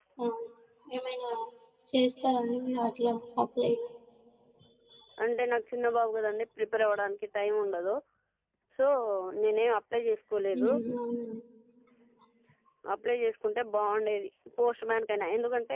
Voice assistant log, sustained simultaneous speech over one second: none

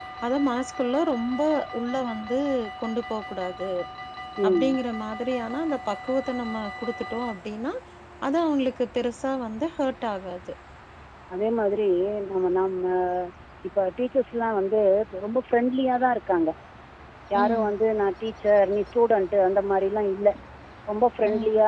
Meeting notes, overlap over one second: none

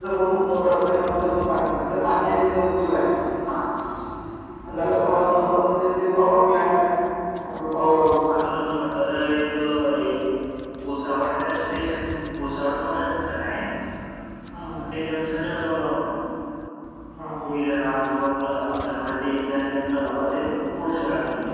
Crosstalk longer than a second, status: none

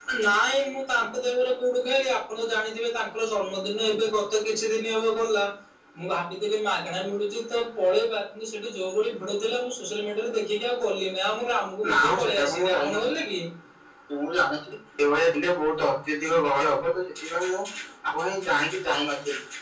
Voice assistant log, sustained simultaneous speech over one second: present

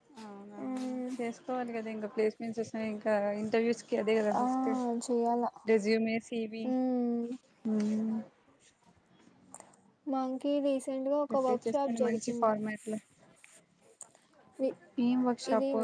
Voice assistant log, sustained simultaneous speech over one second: present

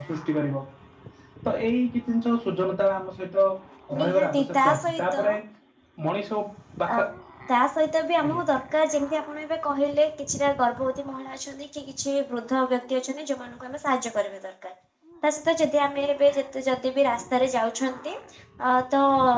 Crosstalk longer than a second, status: present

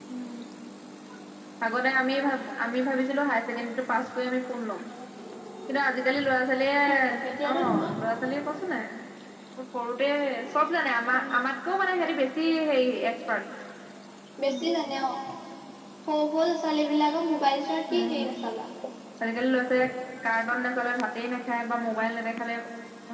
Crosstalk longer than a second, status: none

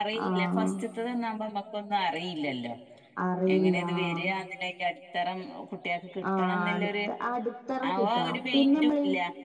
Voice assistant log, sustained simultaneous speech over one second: present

